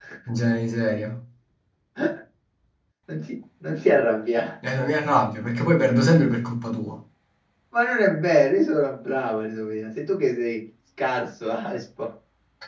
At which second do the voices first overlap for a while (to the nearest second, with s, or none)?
none